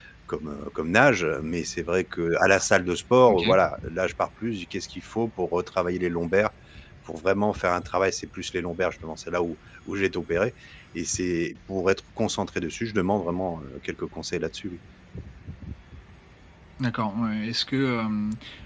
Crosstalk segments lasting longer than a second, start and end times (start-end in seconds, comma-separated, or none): none